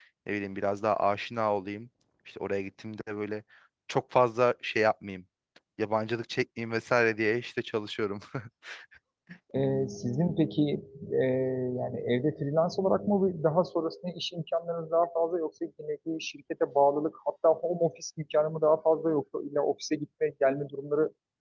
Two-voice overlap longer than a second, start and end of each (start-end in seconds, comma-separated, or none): none